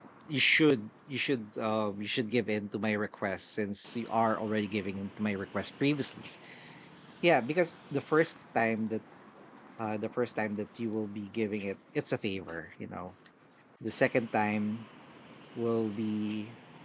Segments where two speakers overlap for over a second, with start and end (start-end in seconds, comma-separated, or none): none